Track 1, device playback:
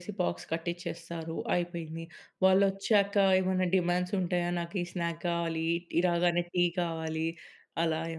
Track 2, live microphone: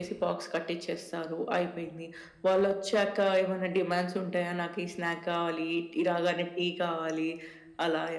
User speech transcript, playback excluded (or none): none